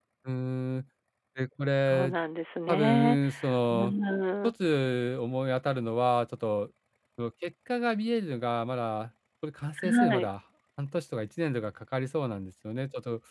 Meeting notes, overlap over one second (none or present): none